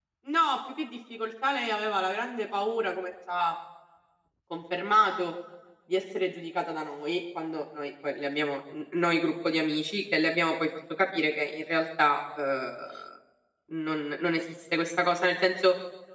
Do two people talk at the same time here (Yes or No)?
No